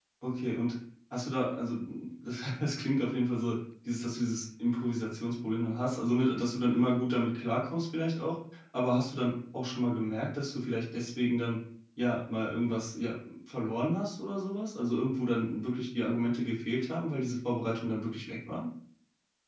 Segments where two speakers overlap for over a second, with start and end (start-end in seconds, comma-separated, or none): none